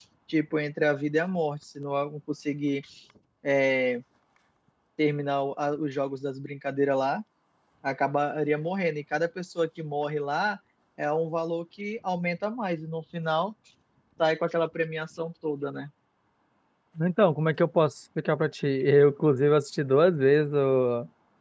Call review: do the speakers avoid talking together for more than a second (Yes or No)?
Yes